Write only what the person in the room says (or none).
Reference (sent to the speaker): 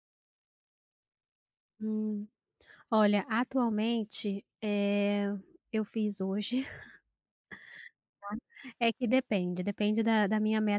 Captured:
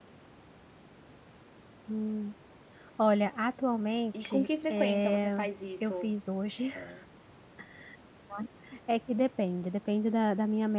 E com que frequência você faz isso? É.